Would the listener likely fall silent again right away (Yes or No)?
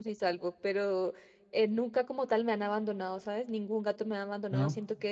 Yes